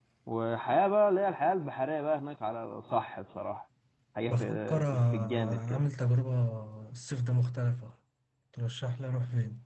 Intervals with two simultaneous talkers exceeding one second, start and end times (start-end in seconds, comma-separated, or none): 4.3-5.8